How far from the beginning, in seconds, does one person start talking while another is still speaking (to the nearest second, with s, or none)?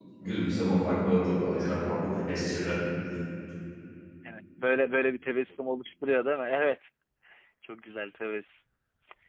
none